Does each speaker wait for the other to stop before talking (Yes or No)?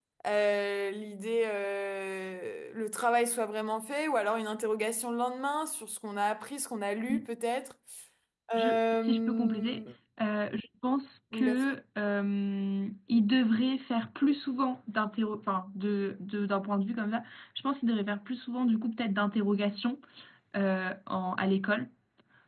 No